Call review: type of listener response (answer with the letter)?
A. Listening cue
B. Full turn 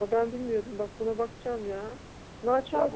B